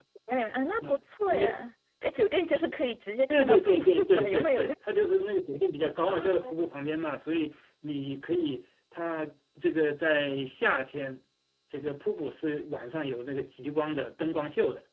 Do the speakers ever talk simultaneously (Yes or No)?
Yes